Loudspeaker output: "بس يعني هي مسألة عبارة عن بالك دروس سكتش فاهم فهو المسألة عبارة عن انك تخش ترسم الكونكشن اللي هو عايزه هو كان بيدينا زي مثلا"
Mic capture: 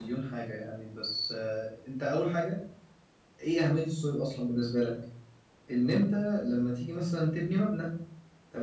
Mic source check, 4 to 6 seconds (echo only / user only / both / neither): user only